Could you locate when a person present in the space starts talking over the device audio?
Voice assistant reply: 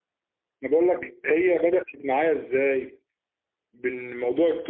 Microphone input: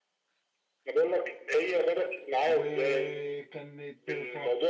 2.5 s

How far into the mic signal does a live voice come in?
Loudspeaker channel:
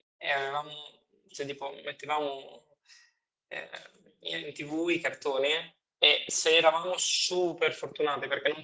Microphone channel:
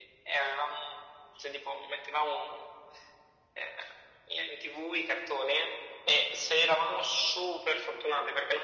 none

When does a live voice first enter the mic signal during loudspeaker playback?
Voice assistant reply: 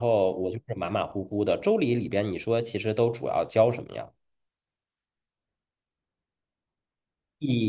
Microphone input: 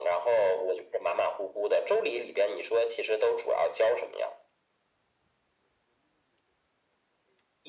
none

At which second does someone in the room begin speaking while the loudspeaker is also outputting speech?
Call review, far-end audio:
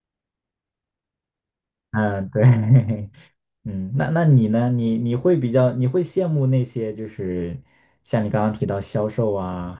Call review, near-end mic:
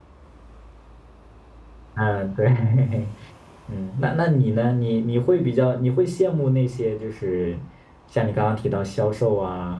none

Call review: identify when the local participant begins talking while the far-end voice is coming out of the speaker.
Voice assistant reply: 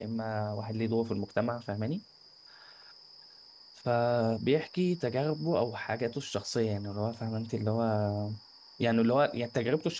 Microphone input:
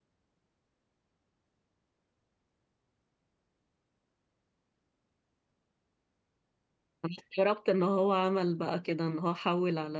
7.0 s

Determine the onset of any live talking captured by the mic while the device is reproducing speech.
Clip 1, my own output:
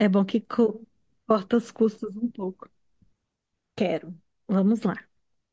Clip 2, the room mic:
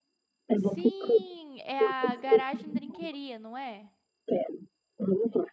0.5 s

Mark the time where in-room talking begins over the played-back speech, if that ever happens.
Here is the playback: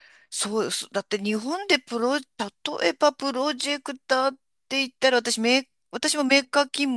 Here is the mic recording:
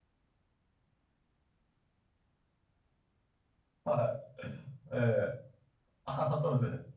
3.8 s

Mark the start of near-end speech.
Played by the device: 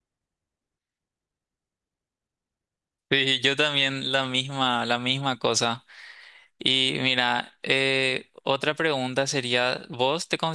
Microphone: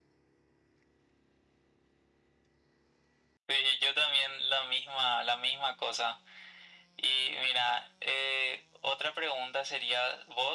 none

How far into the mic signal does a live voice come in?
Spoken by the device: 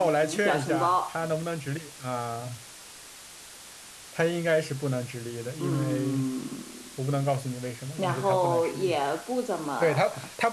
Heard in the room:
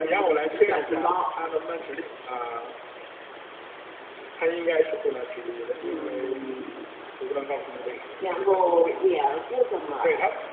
none

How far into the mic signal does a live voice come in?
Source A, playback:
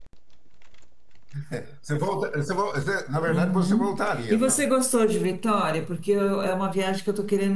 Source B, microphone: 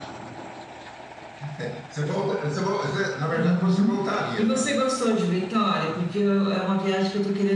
none

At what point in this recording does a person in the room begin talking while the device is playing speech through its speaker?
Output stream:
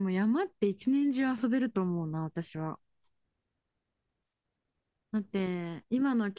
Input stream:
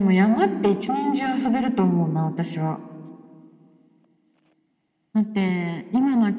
none

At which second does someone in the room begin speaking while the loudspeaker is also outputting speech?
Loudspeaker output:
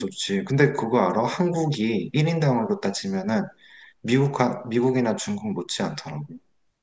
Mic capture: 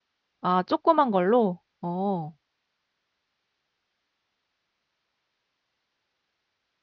0.4 s

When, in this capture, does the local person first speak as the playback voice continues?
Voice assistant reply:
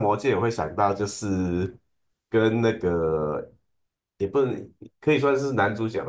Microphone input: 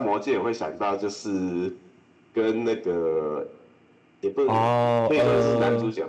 4.4 s

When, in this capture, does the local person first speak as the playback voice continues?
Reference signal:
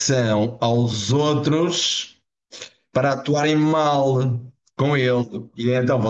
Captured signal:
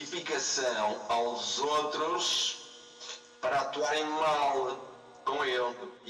none

